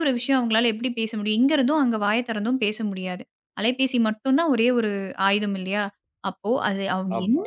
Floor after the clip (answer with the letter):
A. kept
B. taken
A